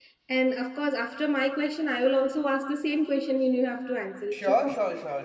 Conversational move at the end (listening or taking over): taking over